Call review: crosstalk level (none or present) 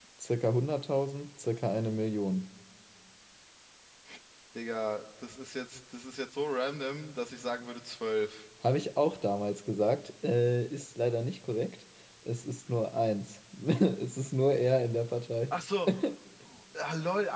none